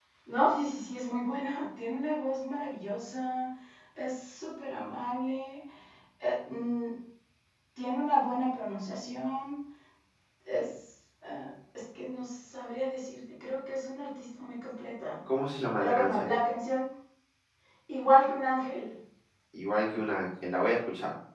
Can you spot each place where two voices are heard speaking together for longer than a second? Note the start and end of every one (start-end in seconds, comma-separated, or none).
none